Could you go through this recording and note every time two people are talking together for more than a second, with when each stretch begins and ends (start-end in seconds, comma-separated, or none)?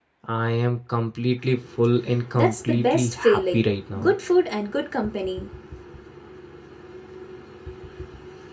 2.4-3.6